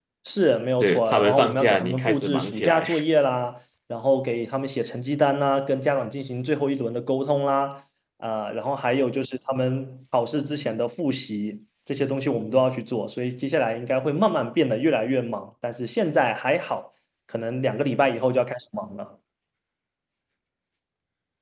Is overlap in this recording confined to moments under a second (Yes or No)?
No